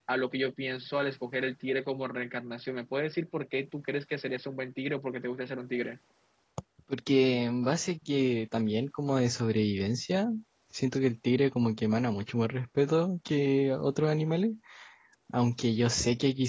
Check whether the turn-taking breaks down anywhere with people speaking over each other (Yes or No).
No